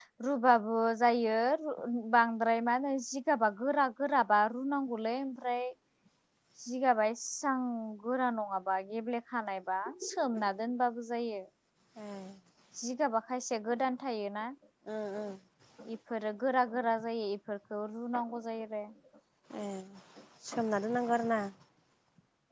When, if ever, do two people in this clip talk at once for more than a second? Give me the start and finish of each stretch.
none

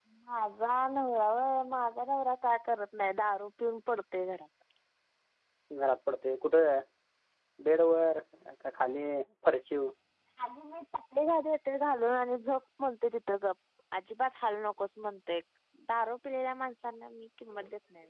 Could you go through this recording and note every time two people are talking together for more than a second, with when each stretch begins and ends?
none

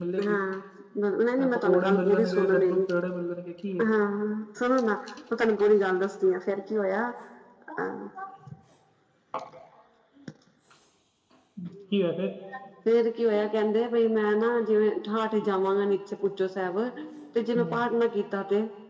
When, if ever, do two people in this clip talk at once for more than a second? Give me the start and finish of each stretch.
1.6-2.8

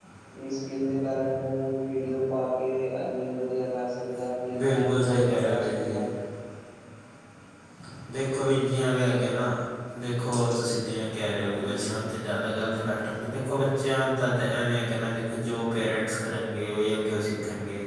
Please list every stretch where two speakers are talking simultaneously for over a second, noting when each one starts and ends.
4.6-6.0

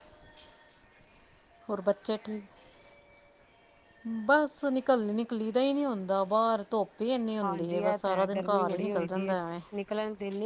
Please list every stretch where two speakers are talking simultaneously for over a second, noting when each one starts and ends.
7.4-9.3

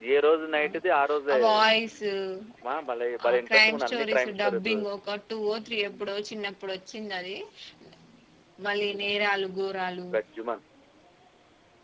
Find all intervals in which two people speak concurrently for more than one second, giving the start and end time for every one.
3.3-4.8

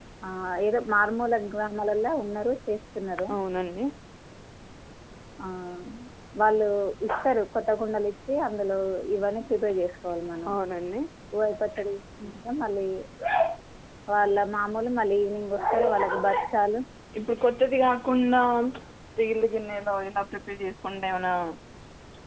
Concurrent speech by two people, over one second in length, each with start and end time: none

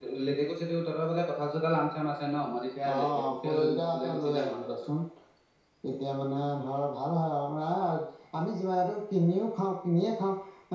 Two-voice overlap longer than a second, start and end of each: 2.9-4.6

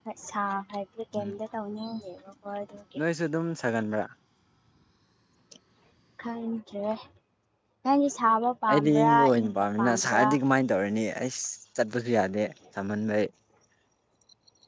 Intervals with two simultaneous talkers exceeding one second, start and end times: 8.7-10.3

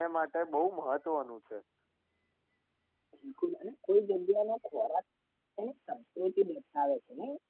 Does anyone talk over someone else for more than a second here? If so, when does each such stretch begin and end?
none

